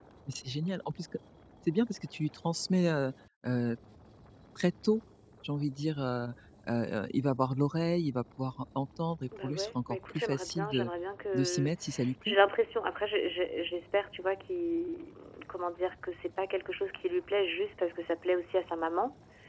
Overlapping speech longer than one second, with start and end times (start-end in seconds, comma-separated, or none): 9.4-10.9